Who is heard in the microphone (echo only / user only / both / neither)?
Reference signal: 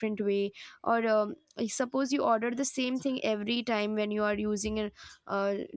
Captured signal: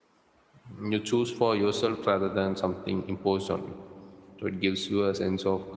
user only